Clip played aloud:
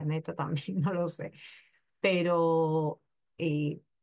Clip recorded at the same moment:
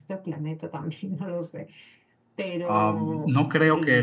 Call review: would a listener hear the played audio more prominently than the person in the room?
No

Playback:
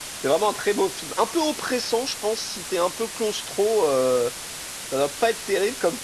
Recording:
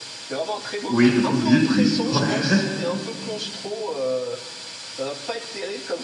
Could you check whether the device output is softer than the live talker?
Yes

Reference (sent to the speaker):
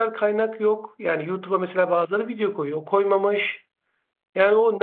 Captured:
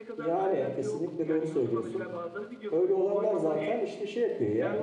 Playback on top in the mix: No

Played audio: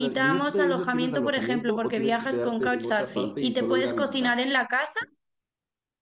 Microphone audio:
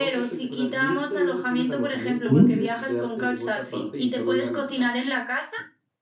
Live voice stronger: Yes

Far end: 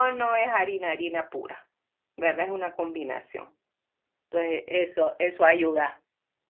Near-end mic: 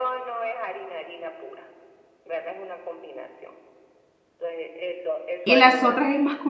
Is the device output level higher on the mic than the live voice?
No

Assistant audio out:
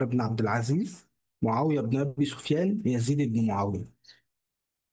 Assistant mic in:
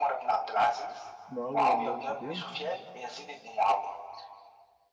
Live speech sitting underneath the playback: Yes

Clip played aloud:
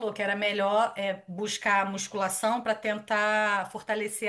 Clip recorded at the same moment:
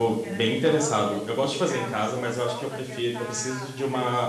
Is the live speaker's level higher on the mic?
Yes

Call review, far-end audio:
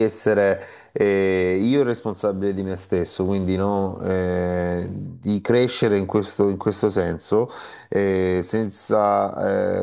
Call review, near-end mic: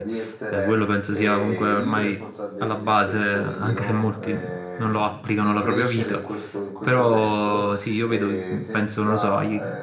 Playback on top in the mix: No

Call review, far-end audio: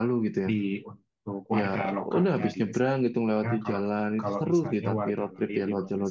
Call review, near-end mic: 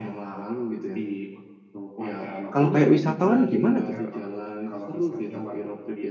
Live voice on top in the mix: Yes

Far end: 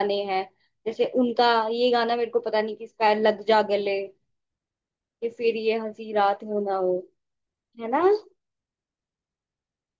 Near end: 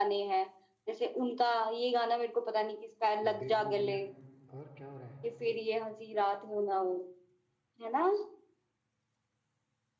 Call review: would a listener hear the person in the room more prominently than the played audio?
No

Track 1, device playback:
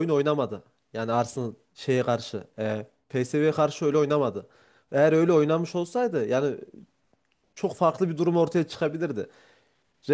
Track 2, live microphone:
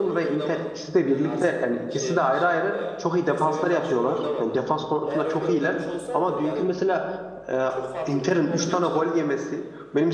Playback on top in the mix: No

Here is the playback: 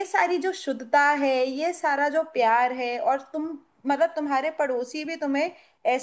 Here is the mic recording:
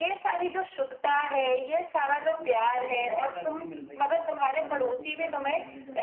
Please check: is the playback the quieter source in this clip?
No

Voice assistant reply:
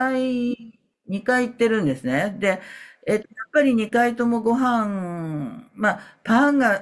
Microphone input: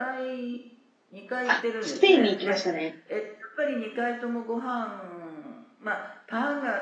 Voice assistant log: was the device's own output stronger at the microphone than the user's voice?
No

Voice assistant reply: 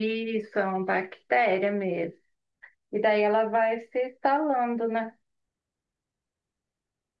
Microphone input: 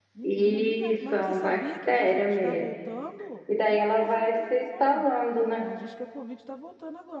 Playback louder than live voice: Yes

